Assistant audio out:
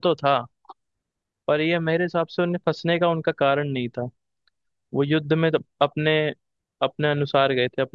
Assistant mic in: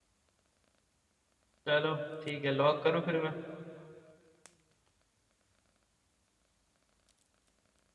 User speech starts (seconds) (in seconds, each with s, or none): 1.7 s